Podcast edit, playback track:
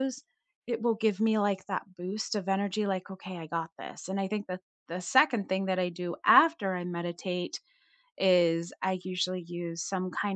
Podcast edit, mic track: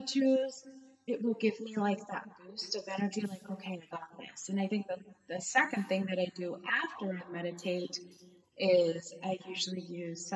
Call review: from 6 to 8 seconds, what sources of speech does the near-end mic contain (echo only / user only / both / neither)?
echo only